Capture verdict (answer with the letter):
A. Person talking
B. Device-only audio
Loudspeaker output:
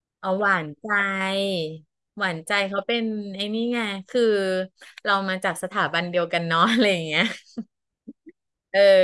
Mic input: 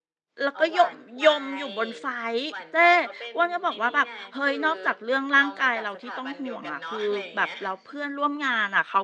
A